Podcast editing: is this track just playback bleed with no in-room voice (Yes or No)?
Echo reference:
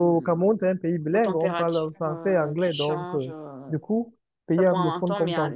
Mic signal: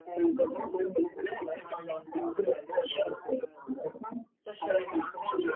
No